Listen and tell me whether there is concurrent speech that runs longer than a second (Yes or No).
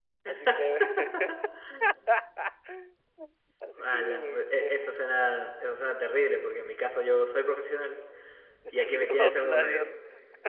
Yes